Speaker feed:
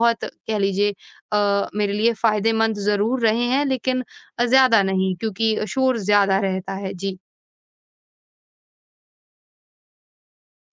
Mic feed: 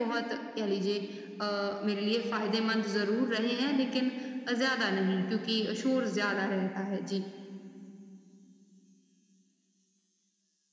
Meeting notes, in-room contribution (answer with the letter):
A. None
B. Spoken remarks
A